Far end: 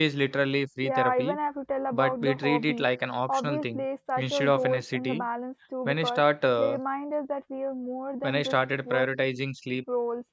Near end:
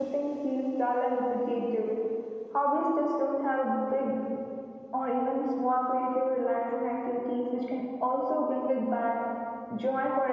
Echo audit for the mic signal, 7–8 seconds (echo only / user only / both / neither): user only